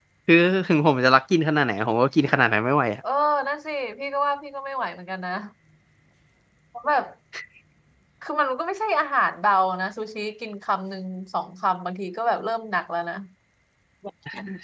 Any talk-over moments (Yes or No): No